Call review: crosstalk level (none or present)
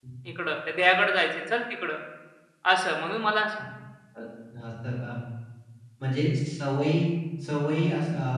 none